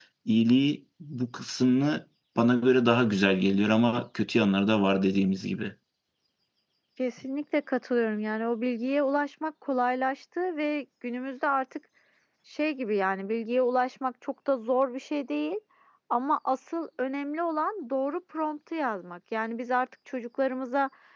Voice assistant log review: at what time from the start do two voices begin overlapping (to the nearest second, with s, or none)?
none